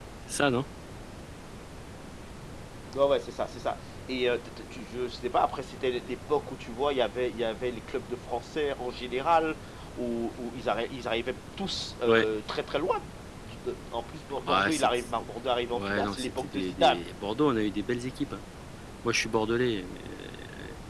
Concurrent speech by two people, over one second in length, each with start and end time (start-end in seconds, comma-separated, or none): 15.7-17.0